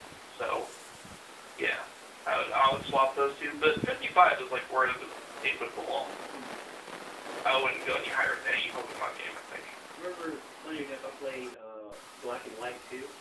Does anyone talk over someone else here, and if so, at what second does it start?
none

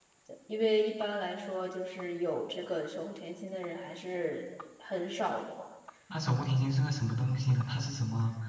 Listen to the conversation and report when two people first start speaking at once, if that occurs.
none

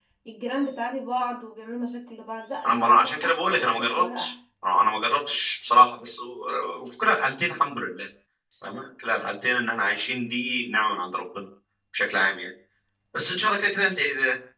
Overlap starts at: 2.6 s

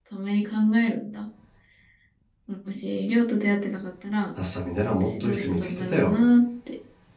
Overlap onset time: 4.9 s

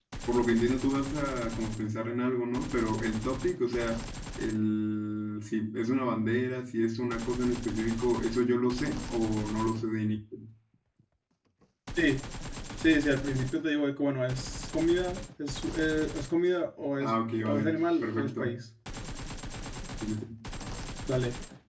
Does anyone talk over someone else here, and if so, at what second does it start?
17.0 s

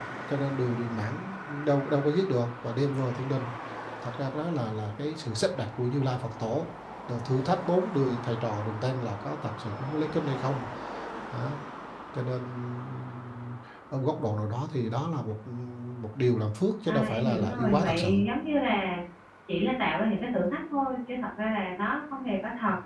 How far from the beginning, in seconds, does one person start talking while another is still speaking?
16.9 s

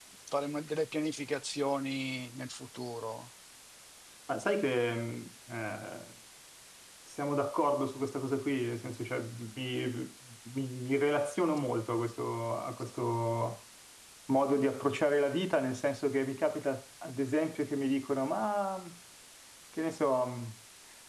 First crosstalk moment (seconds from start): none

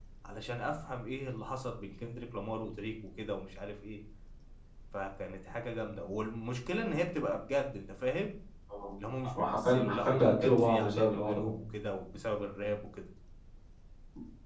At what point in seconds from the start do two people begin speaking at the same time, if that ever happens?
9.3 s

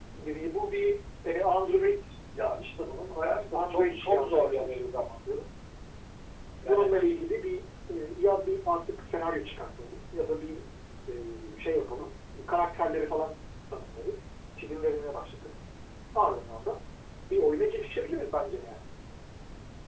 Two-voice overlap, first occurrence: 3.5 s

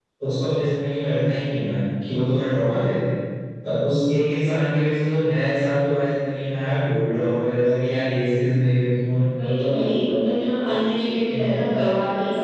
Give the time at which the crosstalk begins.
none

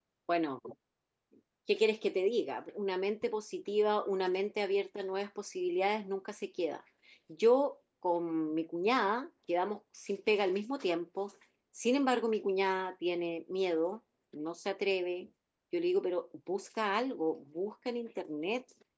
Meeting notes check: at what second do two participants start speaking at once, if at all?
none

